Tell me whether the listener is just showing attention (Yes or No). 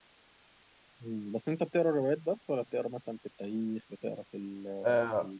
No